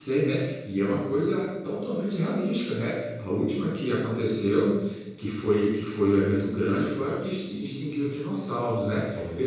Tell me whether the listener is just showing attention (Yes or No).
Yes